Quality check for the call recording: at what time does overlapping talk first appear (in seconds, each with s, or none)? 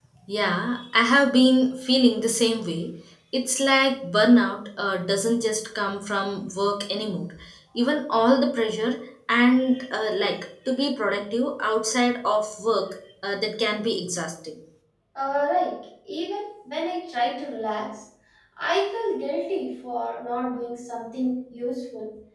none